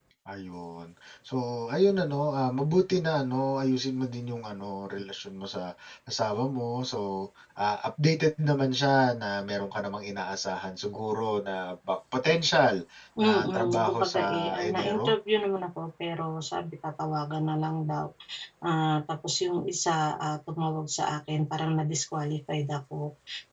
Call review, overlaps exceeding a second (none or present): present